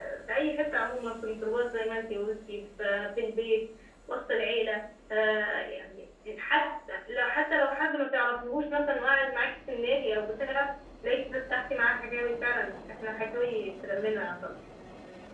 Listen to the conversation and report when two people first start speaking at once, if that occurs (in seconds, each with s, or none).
none